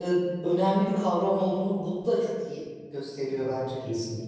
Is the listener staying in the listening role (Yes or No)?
No